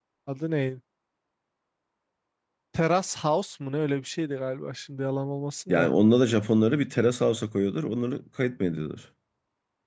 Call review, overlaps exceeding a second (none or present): none